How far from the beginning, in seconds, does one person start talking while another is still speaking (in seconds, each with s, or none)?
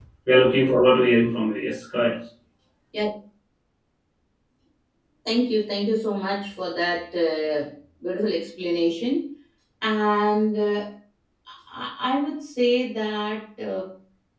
none